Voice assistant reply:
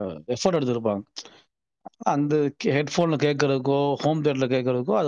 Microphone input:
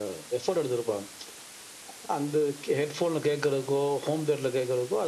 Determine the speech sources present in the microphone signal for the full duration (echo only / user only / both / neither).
echo only